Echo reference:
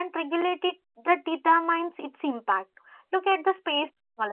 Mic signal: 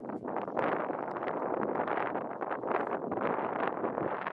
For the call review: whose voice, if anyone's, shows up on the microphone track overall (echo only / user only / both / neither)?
neither